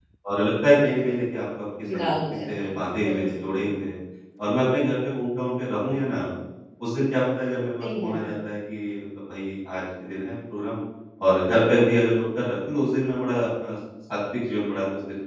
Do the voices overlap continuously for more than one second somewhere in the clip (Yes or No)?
Yes